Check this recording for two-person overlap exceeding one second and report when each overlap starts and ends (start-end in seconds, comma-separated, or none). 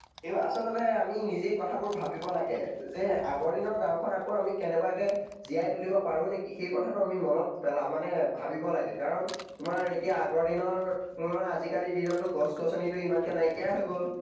none